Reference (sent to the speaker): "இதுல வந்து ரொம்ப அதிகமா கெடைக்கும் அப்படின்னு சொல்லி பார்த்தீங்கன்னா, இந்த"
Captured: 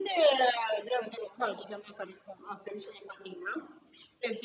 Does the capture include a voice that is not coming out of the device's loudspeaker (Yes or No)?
No